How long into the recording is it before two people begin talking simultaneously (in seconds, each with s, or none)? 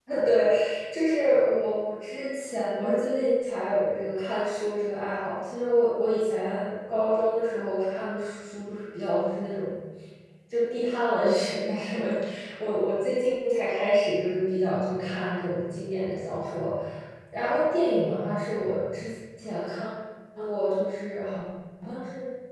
none